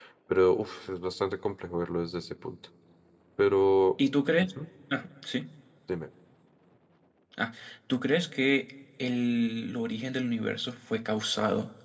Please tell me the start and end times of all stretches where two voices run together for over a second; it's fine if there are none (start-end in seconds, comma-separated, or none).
none